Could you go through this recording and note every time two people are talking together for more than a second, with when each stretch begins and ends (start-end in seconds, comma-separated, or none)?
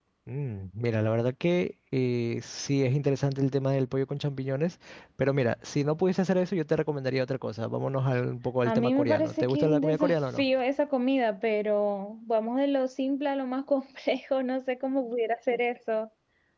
8.7-10.4